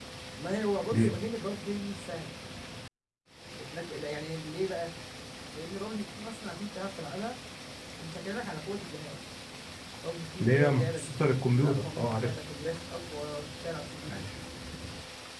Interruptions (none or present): present